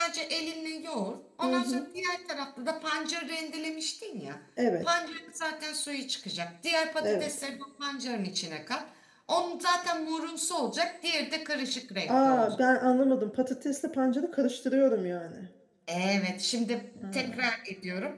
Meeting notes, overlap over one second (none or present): none